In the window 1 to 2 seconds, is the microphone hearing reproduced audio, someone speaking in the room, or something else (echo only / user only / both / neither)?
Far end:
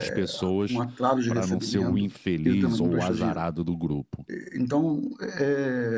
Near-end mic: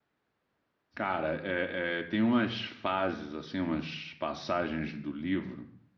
user only